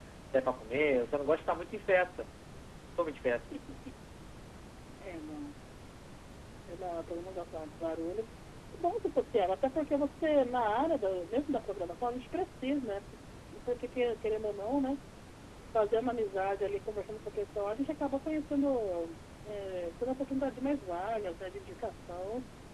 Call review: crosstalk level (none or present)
none